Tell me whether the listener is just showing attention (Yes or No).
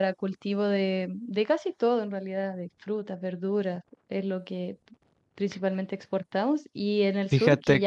Yes